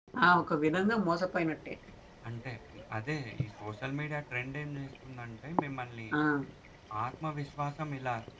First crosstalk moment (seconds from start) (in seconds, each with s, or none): none